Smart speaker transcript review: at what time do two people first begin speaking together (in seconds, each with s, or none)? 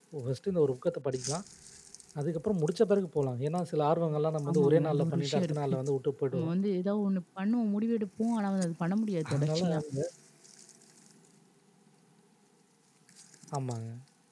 4.5 s